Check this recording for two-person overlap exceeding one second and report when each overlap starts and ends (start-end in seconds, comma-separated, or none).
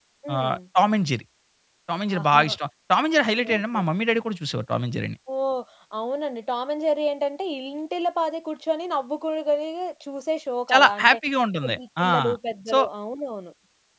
none